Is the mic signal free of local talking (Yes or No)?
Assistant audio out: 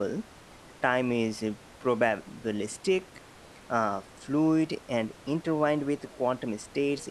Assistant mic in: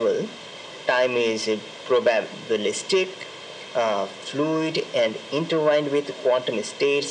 Yes